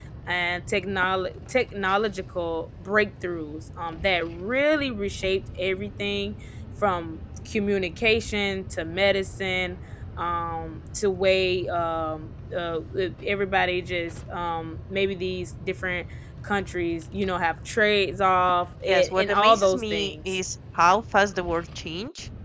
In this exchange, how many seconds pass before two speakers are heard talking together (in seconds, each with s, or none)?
18.9 s